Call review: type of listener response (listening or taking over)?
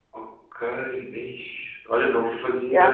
listening